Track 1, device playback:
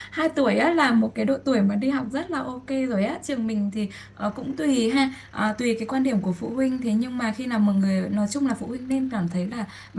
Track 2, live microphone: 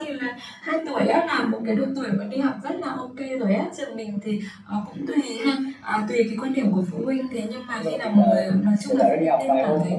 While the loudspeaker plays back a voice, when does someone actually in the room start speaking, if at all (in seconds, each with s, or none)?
7.7 s